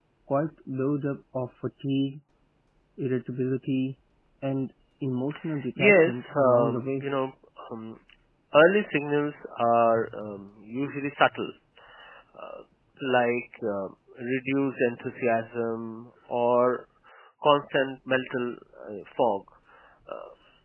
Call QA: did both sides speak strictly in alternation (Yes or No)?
No